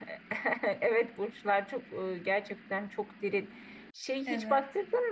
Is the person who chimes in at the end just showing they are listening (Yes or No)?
Yes